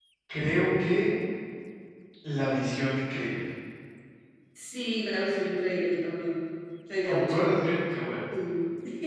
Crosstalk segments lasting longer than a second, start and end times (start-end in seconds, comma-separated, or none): none